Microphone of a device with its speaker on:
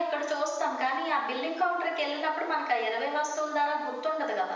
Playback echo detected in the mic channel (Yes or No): Yes